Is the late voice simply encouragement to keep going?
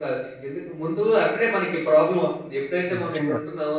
Yes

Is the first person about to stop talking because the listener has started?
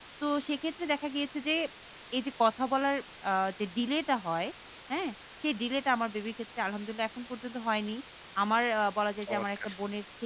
No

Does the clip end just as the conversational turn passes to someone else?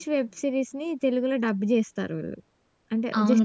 Yes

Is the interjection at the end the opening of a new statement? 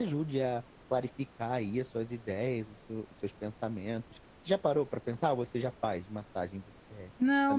Yes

